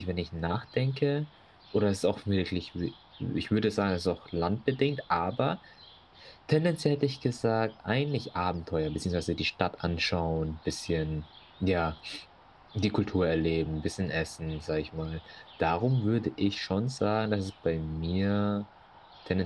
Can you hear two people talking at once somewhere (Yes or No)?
No